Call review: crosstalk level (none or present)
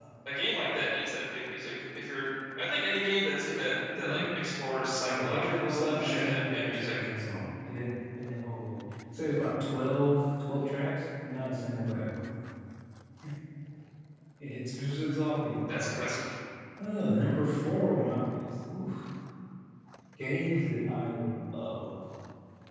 present